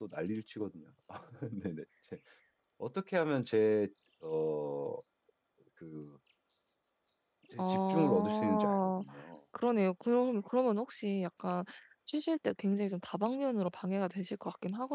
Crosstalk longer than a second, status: present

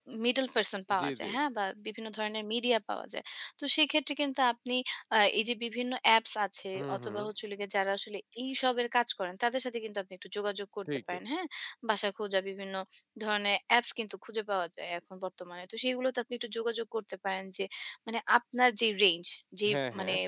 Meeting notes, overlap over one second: none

